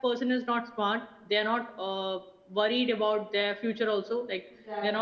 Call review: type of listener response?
listening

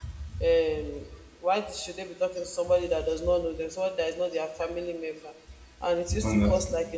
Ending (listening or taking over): listening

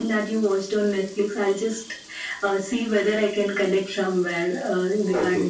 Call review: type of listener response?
taking over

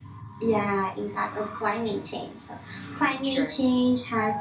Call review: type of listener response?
listening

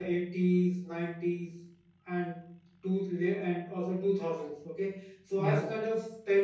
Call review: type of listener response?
listening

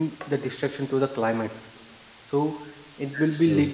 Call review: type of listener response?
listening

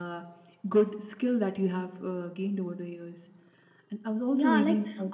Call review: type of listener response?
taking over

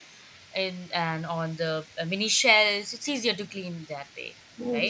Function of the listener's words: taking over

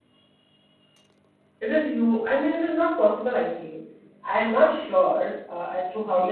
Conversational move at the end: taking over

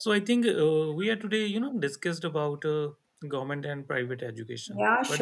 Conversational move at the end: taking over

